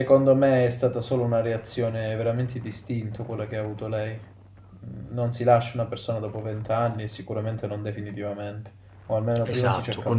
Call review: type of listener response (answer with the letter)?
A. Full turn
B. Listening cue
A